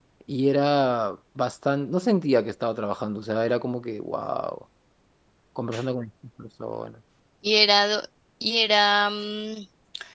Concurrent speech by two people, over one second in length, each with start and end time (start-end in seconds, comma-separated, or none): none